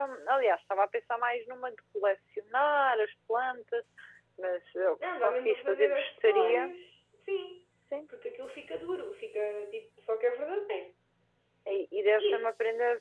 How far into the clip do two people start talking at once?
5 s

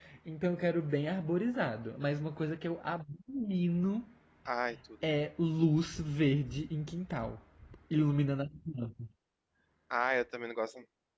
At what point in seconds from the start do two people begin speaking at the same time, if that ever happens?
none

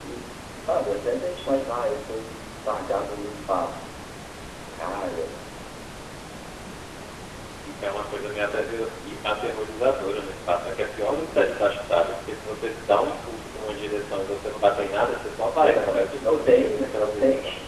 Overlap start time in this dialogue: 16 s

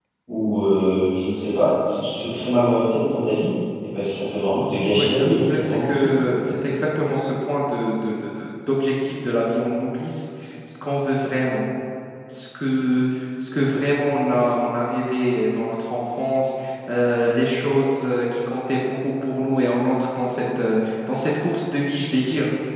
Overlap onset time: 5 s

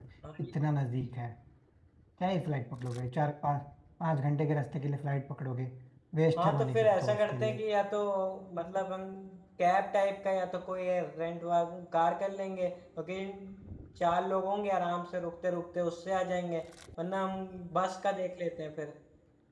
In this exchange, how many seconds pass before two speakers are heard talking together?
6 s

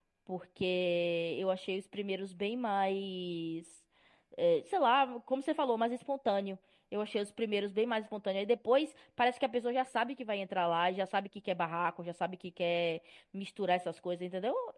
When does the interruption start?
none

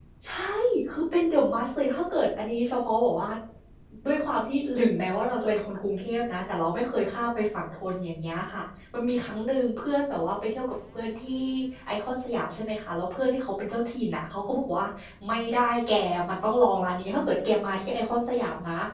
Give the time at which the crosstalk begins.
none

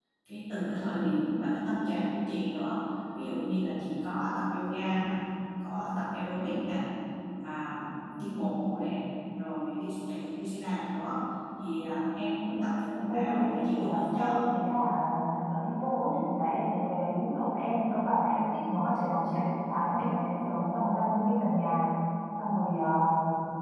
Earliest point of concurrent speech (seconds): 13 s

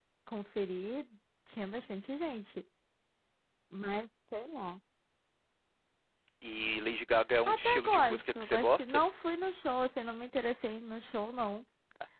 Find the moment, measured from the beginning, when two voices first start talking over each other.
7 s

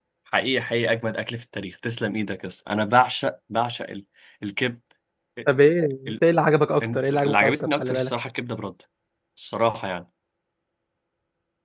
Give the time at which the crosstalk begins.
7 s

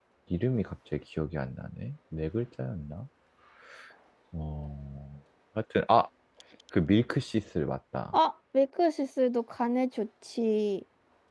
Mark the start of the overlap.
none

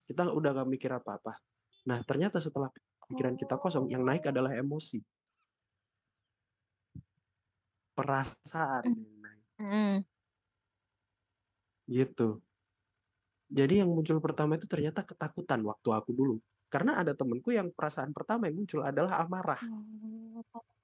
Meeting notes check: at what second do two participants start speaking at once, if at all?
3 s

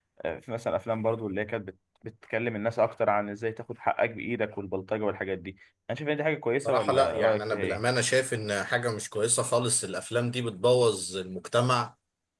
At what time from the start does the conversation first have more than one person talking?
7 s

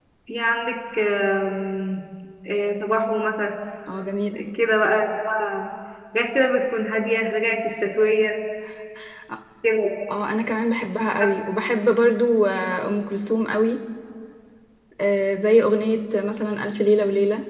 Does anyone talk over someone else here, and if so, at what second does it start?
none

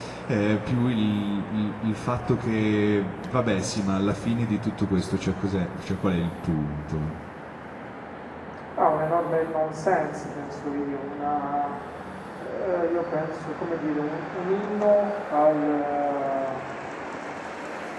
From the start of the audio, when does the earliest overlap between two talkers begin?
none

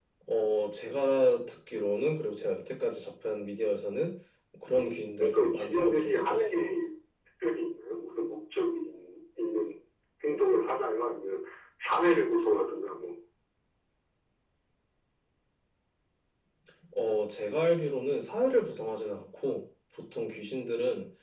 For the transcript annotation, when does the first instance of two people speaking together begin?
5 s

